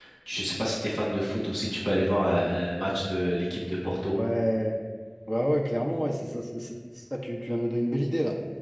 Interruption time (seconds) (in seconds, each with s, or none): none